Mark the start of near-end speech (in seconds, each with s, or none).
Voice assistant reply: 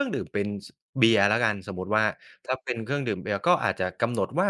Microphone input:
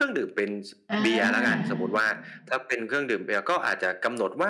0.9 s